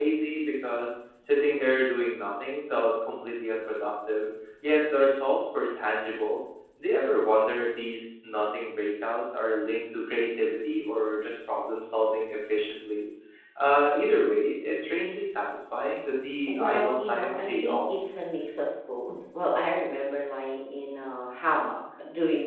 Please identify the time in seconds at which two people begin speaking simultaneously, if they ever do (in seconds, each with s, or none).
16.5 s